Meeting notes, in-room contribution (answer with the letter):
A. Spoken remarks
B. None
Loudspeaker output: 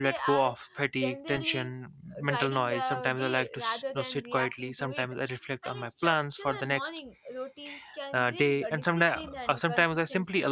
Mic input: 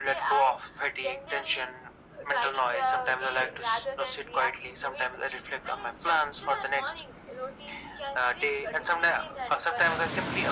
B